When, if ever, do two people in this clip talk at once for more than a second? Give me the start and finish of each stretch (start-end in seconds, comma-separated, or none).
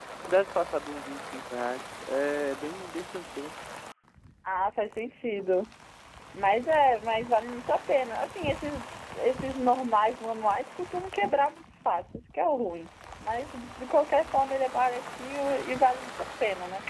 none